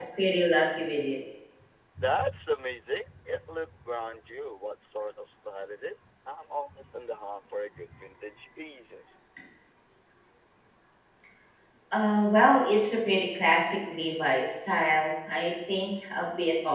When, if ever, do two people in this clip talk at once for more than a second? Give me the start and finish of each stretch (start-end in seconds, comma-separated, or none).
none